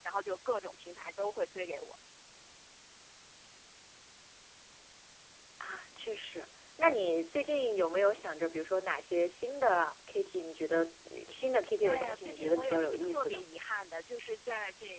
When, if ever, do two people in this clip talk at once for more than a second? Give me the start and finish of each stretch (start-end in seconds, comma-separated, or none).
11.8-13.4